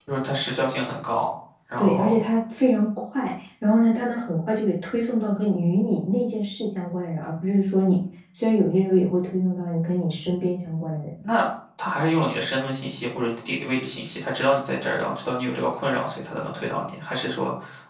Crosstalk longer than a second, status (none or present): none